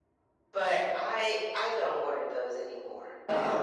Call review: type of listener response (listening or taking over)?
taking over